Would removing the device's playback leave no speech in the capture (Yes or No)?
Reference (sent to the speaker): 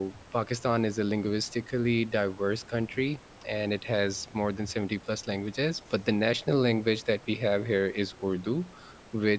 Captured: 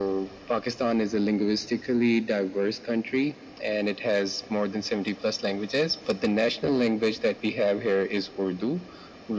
Yes